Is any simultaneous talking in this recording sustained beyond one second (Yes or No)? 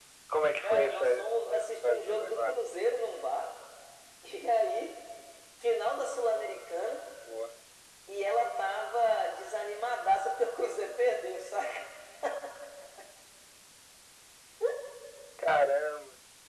Yes